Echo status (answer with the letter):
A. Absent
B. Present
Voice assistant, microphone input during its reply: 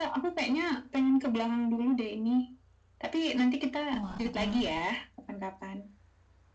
B